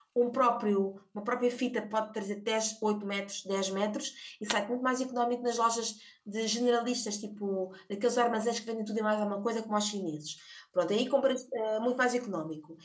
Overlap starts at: none

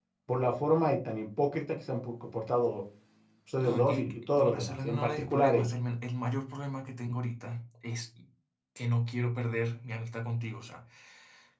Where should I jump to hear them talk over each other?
4 s

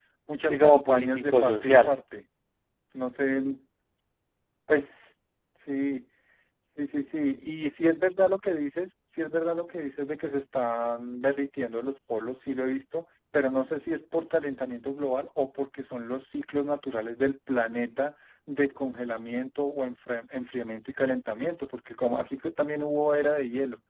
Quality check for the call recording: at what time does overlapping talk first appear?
1 s

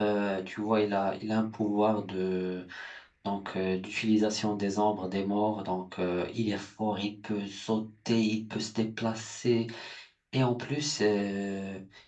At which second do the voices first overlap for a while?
none

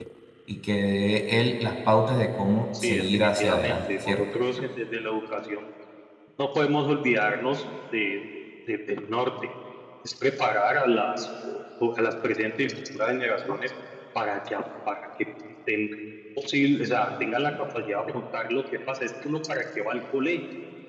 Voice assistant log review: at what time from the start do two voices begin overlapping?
3 s

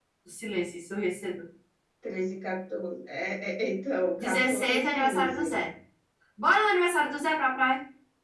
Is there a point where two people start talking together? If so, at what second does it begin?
4 s

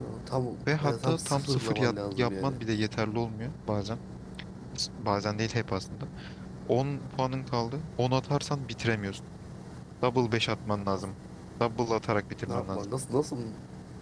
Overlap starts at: 1 s

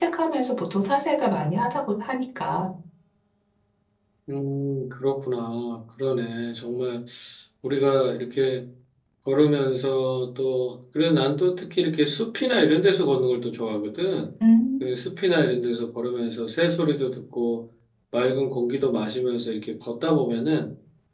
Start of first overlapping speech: none

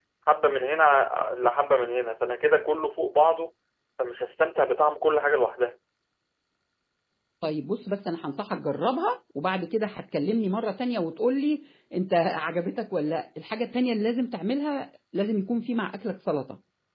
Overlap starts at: none

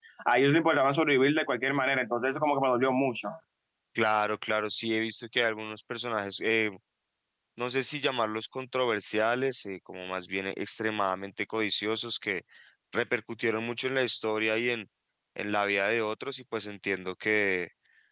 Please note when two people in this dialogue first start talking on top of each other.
none

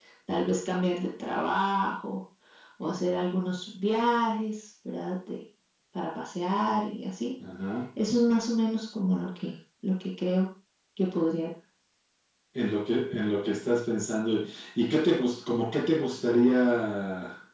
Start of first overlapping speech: none

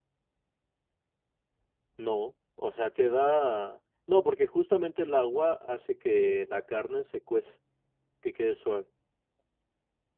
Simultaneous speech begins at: none

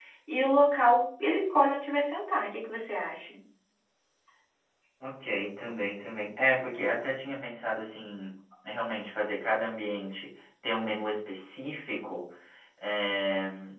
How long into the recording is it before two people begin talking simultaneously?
none

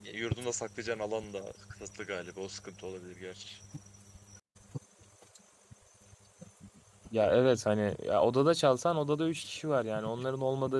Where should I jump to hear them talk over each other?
none

